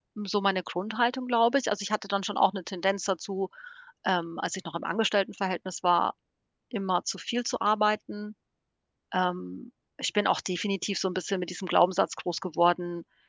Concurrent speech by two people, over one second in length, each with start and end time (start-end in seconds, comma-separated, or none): none